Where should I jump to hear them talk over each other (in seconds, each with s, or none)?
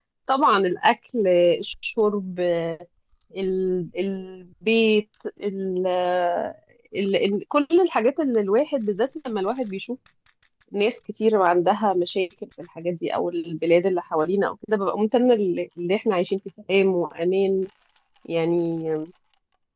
none